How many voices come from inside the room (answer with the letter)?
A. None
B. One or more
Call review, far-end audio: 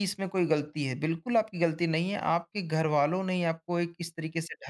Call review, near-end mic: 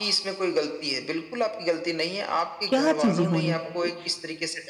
B